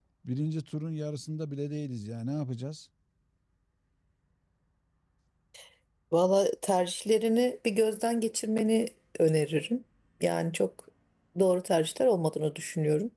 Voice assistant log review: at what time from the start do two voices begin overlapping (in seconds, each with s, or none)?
none